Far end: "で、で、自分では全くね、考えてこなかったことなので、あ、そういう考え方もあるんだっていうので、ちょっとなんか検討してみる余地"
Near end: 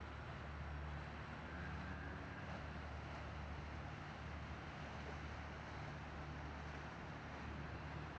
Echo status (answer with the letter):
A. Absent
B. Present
A